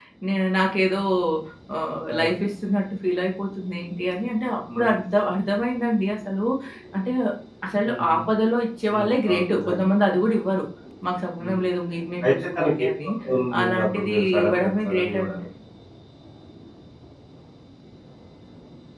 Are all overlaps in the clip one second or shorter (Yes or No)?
No